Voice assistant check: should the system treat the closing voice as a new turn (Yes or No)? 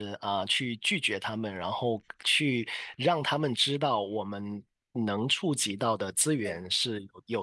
No